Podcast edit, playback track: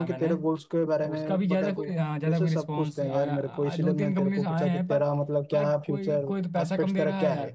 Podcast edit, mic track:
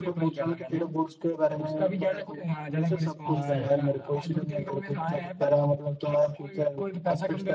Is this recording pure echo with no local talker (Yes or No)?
No